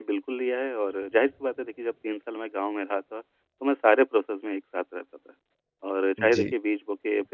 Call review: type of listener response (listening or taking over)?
listening